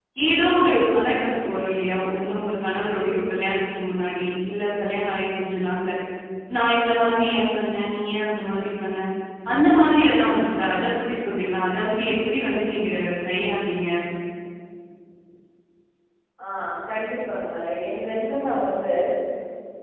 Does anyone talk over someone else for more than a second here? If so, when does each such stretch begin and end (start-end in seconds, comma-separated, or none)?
none